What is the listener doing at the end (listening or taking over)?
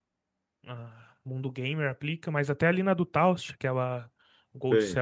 listening